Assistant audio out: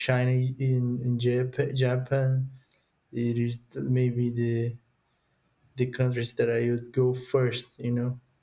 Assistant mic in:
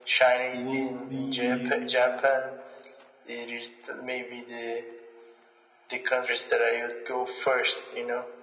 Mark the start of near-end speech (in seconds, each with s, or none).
0.5 s